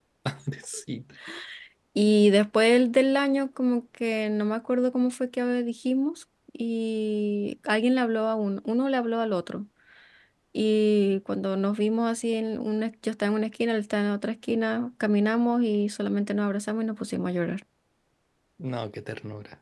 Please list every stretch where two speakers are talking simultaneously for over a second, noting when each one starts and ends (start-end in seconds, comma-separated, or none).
none